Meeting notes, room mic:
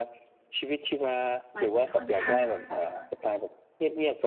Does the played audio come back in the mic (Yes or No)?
Yes